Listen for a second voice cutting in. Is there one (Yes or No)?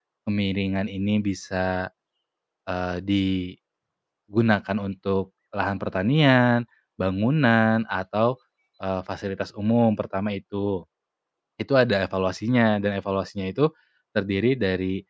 No